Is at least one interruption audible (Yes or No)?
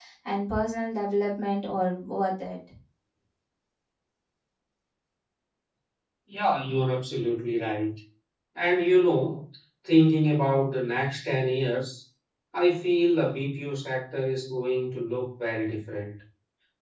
No